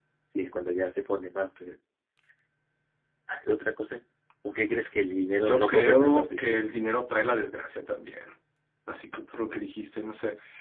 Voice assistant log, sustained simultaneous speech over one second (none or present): present